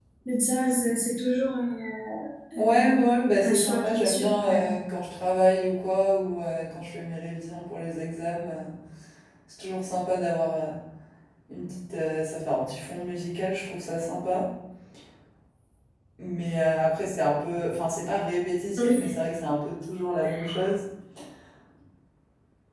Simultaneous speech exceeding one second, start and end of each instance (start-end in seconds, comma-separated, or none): 3.4-4.7